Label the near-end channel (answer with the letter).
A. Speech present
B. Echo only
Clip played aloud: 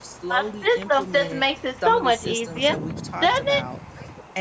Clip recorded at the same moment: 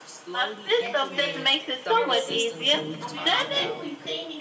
A